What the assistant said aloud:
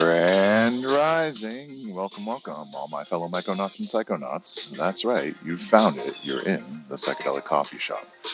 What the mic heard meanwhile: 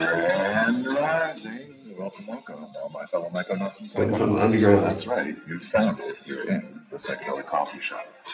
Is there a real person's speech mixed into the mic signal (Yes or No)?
Yes